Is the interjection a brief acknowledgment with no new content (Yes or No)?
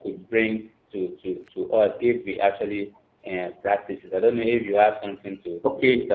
No